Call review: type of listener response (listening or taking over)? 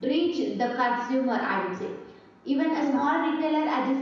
listening